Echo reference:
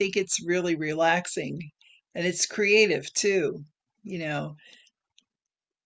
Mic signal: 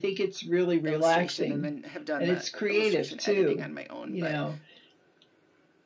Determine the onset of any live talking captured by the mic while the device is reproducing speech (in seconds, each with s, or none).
0.8 s